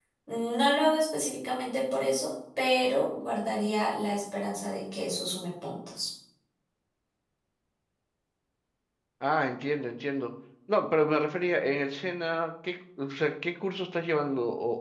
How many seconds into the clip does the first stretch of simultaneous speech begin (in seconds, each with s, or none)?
none